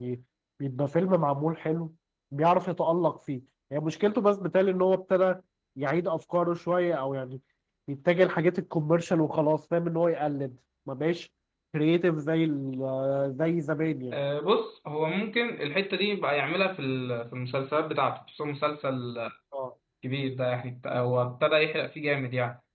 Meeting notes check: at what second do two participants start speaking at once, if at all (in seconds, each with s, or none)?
none